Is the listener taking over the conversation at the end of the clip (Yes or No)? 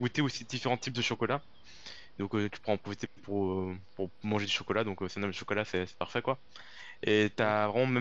No